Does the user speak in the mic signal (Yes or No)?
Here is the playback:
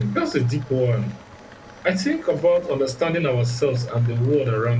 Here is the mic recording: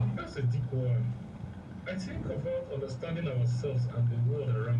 No